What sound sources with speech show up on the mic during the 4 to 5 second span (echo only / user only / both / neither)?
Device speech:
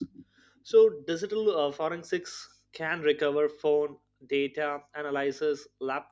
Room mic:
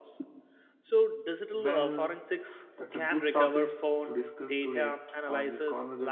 both